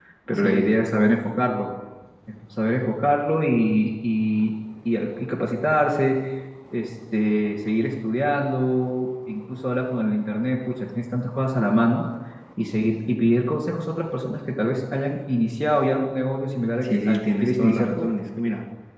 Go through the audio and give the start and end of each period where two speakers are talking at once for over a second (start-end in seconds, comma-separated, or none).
16.8-18.1